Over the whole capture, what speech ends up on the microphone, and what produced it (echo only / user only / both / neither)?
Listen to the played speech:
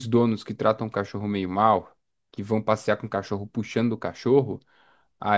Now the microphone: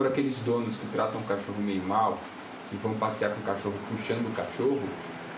echo only